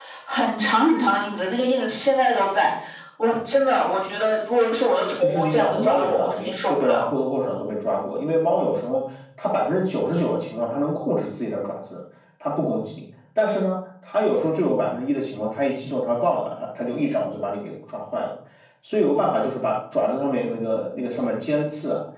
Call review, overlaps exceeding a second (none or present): present